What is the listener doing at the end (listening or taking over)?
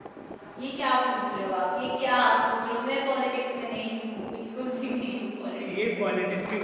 taking over